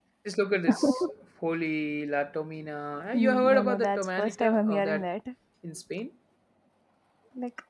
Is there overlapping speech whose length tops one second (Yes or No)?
Yes